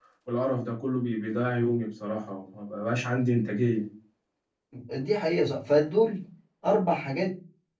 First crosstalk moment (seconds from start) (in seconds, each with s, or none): none